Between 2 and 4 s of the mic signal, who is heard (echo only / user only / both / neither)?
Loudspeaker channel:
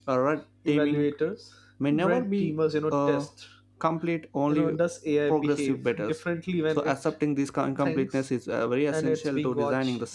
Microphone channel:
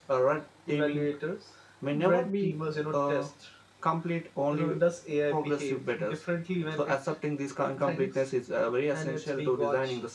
echo only